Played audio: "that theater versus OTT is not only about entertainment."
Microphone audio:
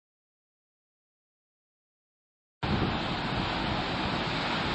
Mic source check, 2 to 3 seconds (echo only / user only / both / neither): neither